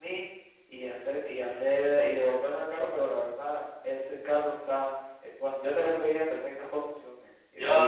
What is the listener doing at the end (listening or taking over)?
taking over